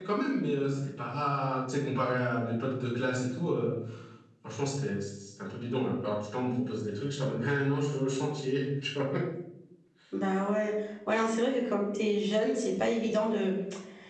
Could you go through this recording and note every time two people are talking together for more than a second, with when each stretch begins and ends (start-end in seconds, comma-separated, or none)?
none